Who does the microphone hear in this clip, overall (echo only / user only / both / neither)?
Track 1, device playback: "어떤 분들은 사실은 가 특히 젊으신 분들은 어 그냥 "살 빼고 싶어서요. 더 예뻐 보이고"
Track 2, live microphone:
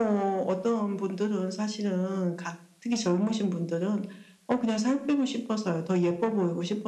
echo only